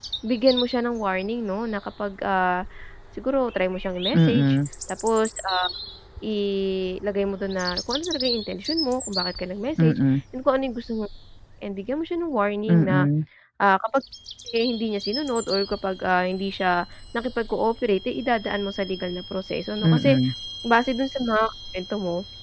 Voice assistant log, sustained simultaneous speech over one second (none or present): none